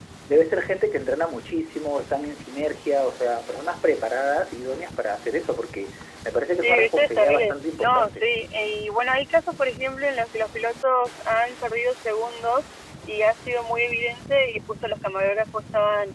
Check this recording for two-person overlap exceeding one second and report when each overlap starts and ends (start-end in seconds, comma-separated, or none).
6.6-8.3